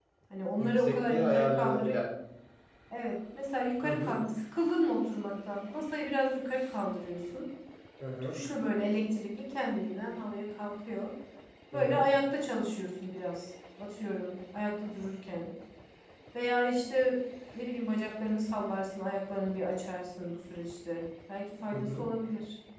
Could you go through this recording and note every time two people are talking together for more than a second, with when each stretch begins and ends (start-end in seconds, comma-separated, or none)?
0.6-2.0